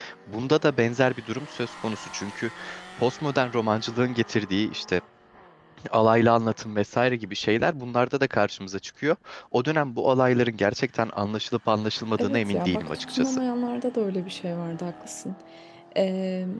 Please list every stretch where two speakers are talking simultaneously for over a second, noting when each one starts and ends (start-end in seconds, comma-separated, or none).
12.2-13.4